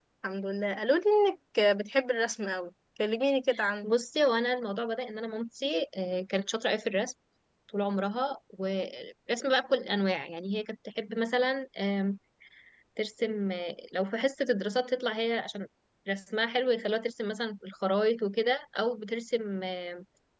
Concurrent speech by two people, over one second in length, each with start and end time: none

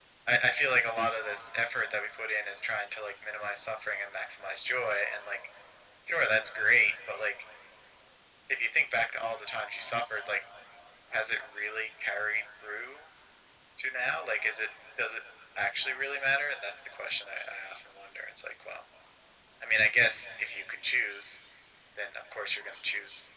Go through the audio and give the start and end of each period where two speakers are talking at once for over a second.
none

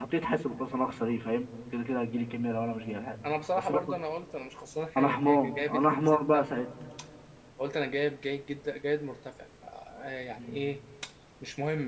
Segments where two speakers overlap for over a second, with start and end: 5.0-6.5

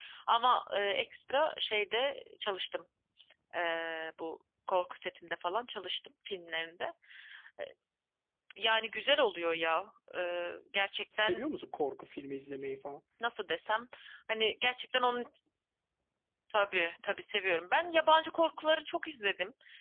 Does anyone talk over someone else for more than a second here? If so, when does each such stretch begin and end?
none

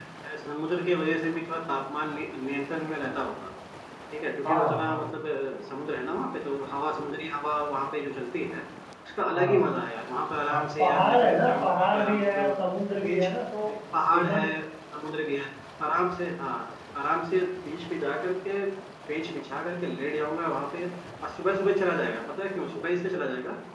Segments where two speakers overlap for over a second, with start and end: 10.5-12.5

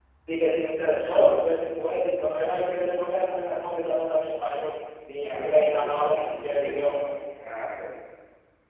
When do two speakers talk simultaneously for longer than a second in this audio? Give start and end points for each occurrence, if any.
5.1-7.0

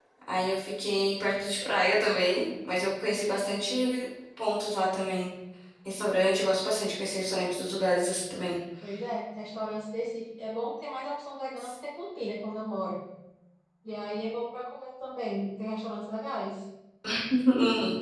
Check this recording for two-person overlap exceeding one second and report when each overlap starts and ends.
none

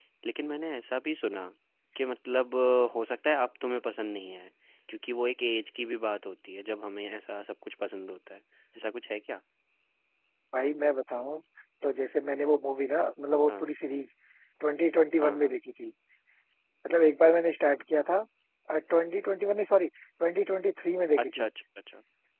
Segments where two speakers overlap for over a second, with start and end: none

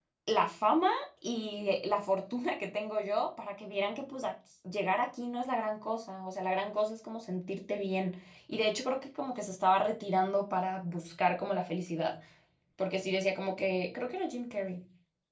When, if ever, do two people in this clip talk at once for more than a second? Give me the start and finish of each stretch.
none

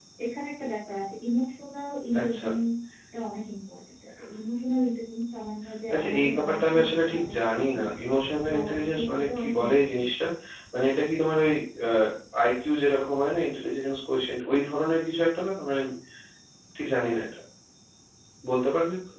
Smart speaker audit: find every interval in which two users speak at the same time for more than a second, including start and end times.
5.9-7.8, 8.5-10.1

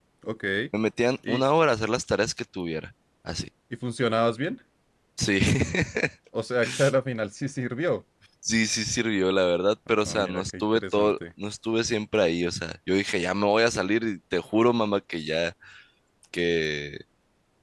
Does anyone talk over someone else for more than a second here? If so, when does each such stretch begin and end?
9.9-11.2

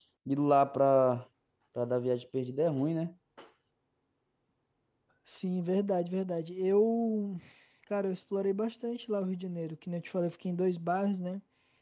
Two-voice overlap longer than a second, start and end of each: none

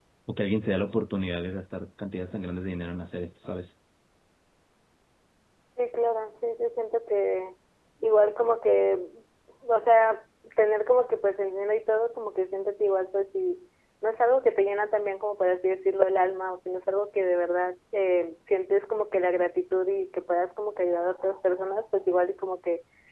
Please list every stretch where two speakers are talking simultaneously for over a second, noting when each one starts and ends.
none

